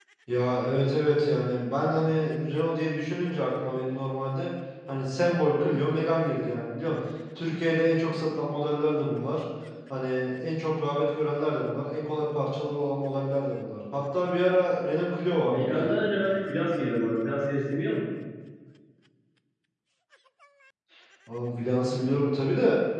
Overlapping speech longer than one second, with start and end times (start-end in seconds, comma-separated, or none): none